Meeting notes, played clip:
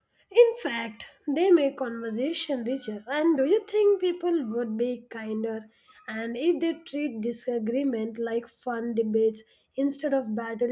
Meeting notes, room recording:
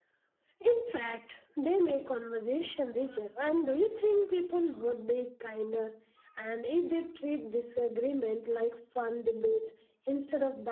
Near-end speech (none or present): none